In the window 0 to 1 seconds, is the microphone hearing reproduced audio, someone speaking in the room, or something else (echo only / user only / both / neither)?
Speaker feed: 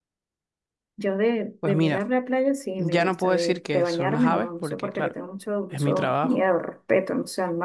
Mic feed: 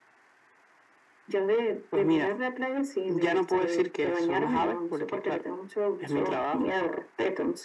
neither